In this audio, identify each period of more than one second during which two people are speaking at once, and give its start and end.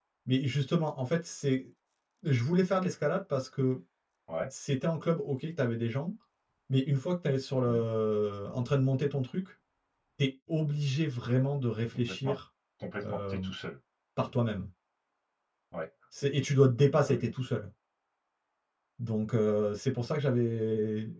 none

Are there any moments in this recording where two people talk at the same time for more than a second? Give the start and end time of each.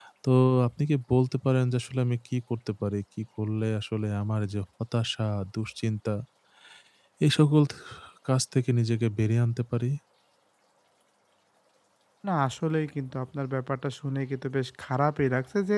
none

